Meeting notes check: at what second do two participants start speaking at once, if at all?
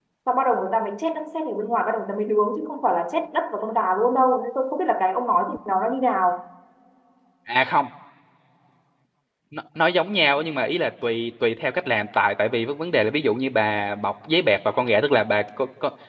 none

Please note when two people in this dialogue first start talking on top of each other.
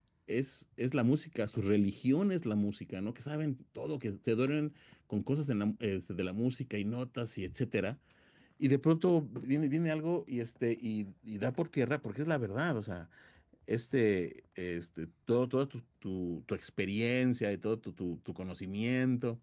none

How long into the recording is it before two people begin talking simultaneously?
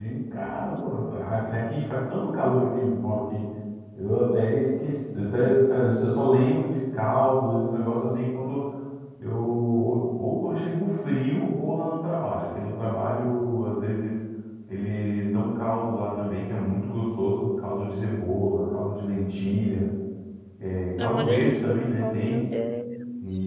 21.0 s

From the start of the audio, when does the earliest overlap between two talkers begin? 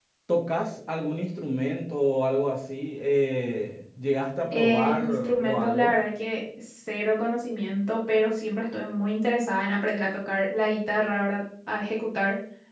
4.5 s

